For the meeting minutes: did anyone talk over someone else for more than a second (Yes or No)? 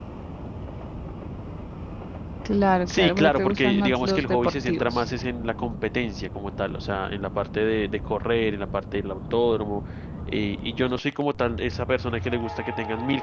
Yes